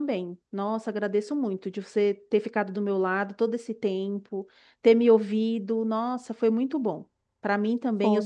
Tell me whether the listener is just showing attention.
Yes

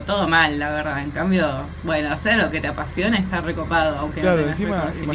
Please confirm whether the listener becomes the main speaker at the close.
Yes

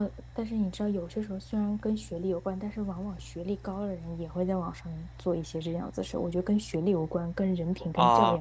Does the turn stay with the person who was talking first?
No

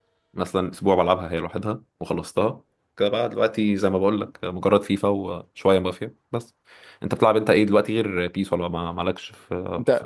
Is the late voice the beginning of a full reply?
Yes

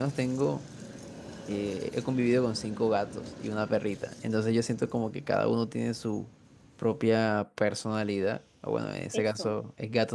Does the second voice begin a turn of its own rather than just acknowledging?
No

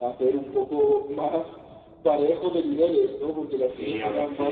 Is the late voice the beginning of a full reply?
Yes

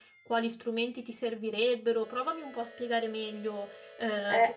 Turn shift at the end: Yes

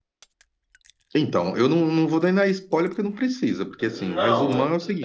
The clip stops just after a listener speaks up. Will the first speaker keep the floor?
No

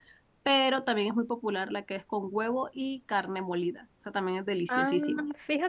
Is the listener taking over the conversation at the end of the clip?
Yes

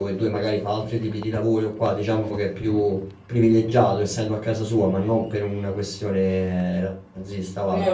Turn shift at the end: No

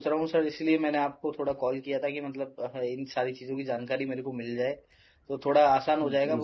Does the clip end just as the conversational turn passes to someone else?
No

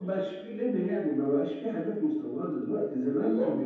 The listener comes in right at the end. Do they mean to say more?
No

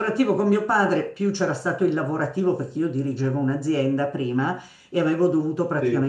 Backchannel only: Yes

